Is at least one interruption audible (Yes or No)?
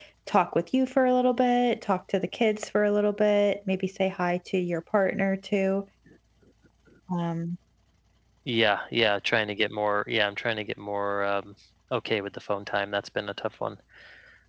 No